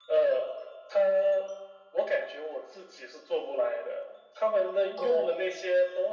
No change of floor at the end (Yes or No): Yes